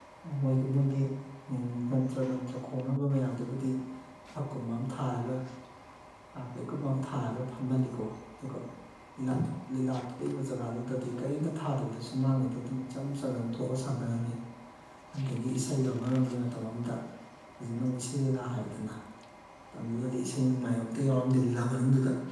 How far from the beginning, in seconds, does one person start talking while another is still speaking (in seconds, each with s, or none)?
none